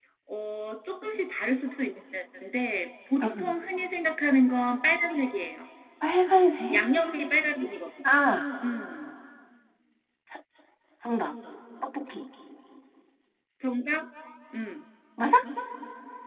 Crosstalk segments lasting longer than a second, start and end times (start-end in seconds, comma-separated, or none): none